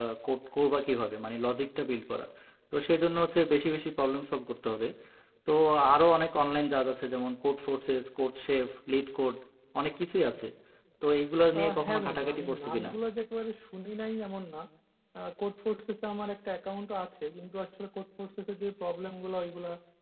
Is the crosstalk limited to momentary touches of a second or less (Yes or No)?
No